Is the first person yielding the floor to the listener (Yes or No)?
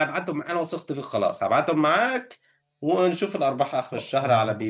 Yes